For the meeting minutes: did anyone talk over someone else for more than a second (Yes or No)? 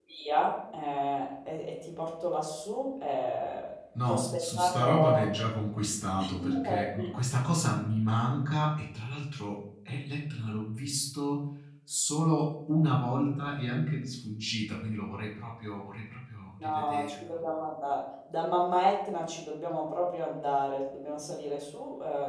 Yes